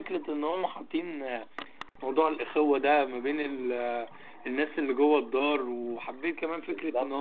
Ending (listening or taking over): listening